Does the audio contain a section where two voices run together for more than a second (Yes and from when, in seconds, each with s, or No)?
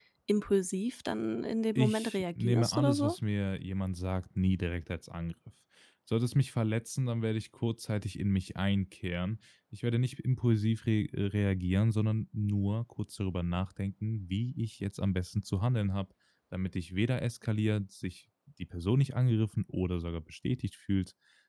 Yes, from 1.8 s